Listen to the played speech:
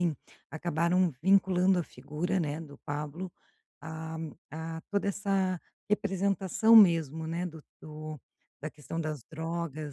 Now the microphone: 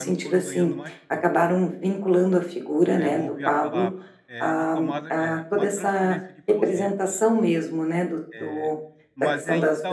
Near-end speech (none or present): present